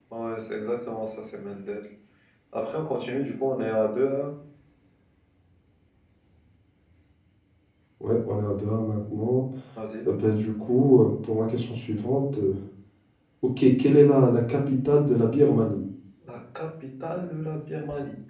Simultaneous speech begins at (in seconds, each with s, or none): none